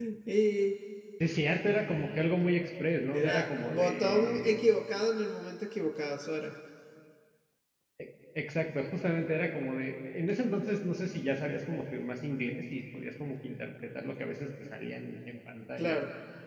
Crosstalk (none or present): present